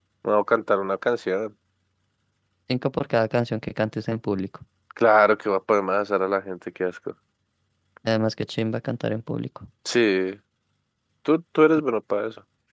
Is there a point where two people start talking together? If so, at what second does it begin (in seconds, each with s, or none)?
none